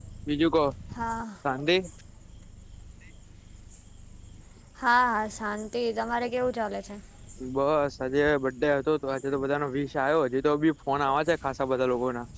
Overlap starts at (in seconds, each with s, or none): none